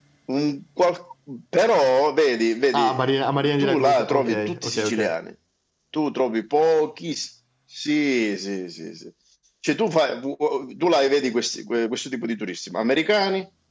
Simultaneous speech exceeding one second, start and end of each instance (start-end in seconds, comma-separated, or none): 3.6-5.1